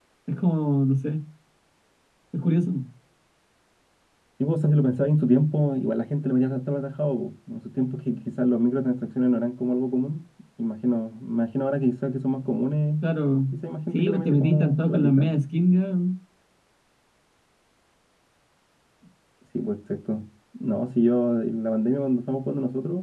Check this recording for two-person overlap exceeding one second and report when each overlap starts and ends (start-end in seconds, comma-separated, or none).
13.9-15.3